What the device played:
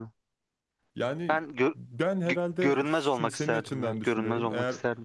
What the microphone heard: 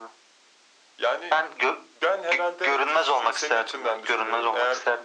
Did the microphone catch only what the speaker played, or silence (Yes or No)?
Yes